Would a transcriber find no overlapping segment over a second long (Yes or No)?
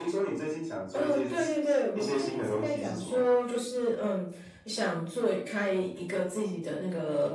No